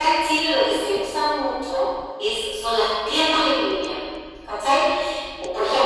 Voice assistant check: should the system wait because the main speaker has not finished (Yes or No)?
Yes